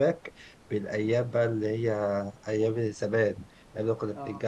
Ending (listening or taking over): listening